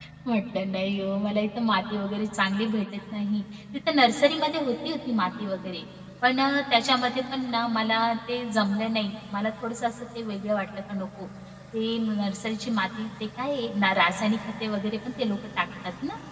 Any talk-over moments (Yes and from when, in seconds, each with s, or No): No